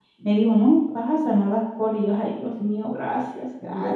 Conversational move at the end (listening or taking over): taking over